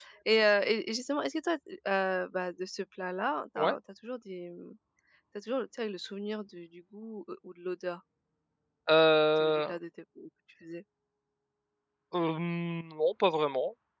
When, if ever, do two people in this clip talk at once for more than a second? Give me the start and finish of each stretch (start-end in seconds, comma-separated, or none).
none